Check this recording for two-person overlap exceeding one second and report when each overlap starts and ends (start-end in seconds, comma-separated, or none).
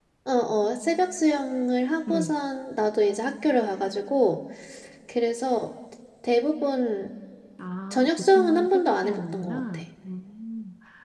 7.9-9.8